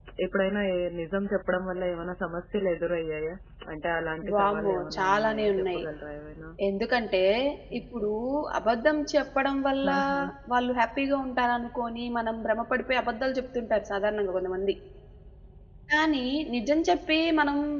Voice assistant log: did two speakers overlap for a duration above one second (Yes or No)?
Yes